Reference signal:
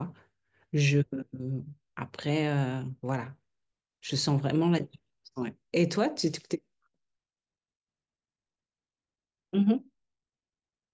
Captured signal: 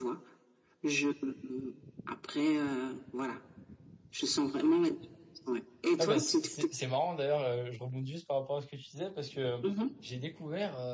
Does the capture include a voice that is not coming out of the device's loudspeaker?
Yes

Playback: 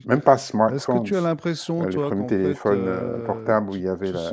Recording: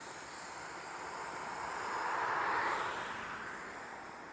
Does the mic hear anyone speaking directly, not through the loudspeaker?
No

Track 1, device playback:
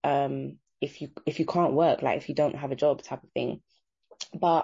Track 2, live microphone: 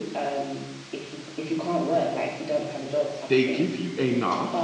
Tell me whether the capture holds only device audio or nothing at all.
No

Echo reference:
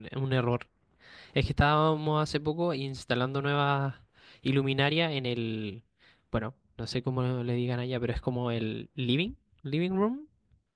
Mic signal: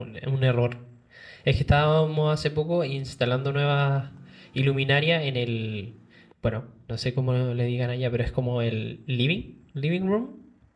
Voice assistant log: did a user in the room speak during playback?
No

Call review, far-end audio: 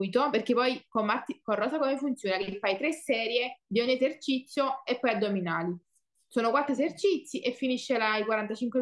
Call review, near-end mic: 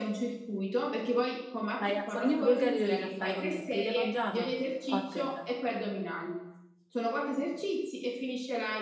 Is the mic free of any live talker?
No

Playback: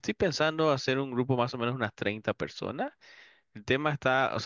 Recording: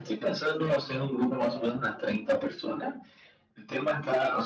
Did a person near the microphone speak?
No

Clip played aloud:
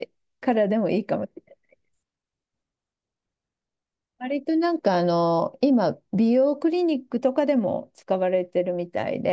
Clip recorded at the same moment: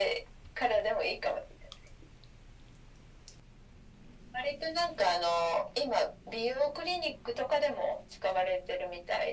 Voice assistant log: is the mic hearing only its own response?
Yes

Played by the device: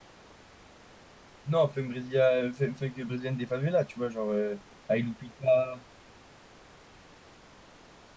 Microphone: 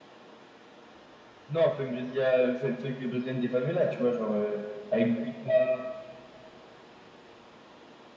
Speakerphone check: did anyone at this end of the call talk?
No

